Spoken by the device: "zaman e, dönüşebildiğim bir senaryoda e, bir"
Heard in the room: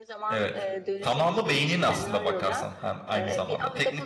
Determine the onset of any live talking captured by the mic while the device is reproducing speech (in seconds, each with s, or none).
0.3 s